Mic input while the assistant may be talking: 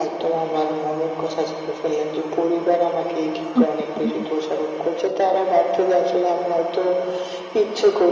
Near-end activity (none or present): present